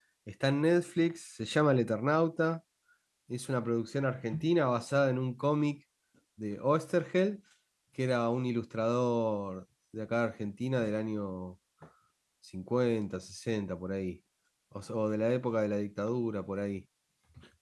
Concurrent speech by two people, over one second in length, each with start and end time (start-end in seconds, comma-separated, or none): none